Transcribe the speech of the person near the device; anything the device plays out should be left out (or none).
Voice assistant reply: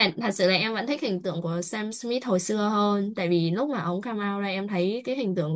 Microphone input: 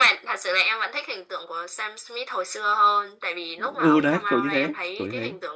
ừ ừ, đấy kiểu như thế kiểu như thế